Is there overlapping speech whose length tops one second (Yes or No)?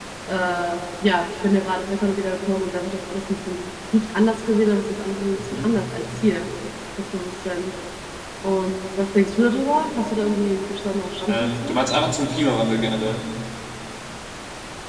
No